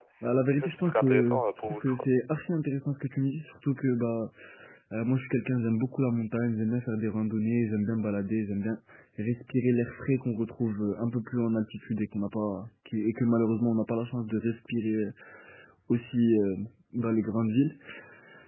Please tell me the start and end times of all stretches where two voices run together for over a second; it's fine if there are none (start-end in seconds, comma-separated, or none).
0.5-2.0